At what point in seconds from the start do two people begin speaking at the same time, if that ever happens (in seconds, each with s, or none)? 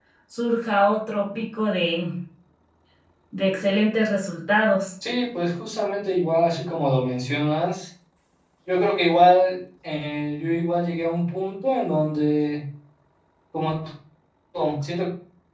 none